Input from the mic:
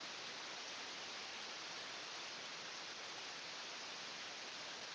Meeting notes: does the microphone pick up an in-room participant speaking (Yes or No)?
No